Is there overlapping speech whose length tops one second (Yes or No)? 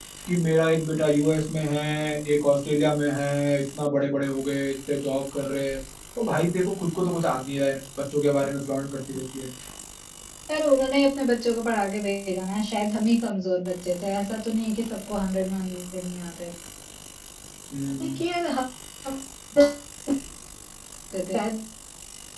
No